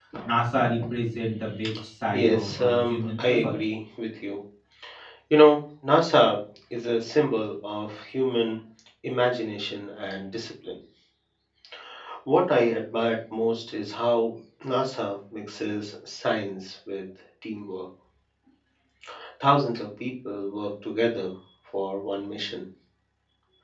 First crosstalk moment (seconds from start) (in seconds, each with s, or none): 2.1 s